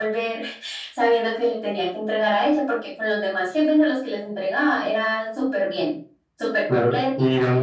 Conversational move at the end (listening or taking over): taking over